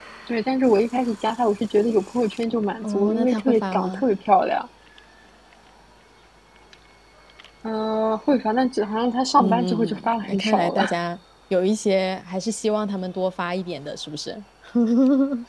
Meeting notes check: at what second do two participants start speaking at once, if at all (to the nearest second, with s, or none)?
3 s